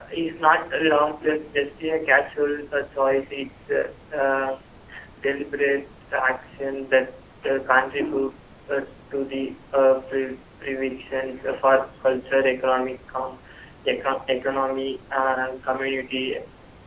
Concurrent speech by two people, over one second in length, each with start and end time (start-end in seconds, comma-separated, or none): none